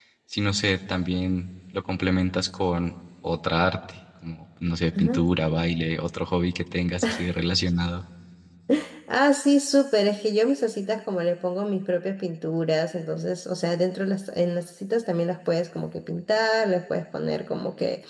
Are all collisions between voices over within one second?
Yes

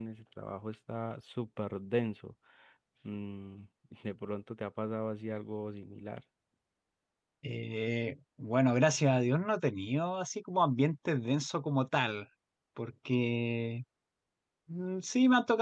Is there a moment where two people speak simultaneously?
No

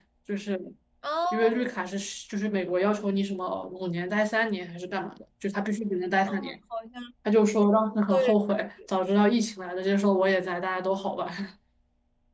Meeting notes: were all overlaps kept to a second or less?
Yes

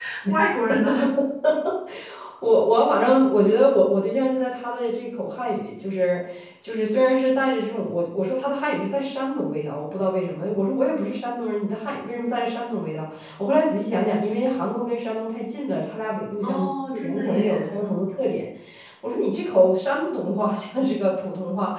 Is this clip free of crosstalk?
No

